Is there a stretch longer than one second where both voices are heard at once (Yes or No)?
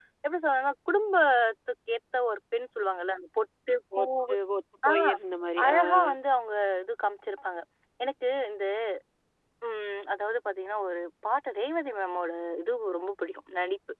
No